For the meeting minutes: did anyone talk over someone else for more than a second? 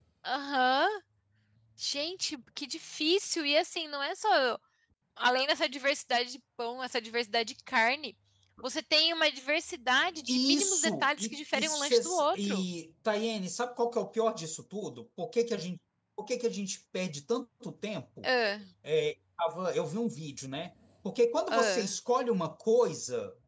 Yes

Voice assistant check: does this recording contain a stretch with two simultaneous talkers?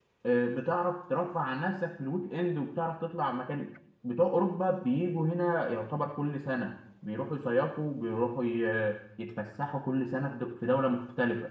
No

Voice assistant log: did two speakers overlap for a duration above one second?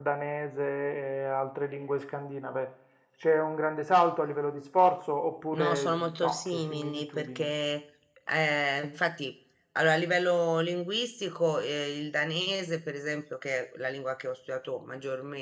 Yes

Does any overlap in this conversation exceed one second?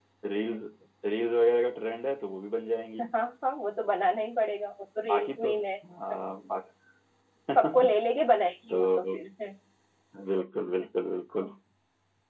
No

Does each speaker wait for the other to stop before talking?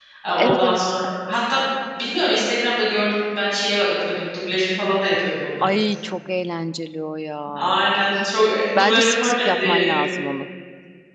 No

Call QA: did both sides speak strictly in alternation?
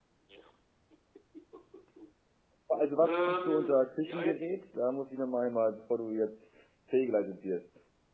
No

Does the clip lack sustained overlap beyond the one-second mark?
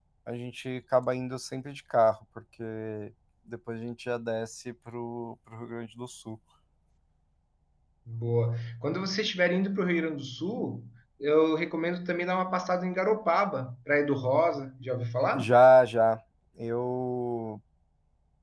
Yes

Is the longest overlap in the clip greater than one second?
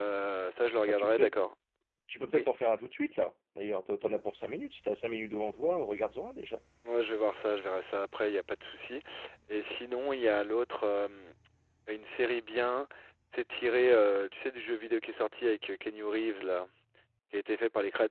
No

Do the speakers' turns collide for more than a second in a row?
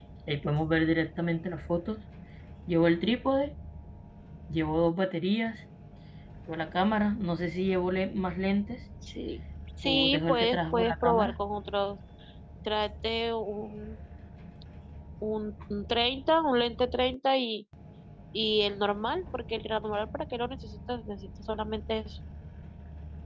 Yes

